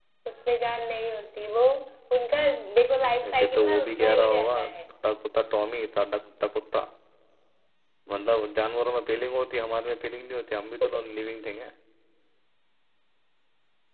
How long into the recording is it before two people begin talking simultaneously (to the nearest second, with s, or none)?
3 s